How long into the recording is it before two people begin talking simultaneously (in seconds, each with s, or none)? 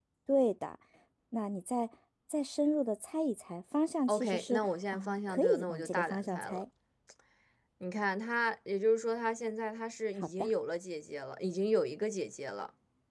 4.1 s